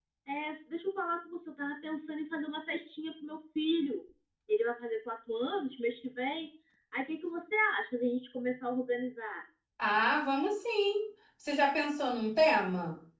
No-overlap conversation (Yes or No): Yes